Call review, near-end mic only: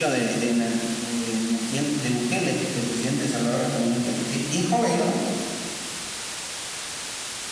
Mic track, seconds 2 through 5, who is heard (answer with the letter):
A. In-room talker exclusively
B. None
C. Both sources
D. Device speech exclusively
D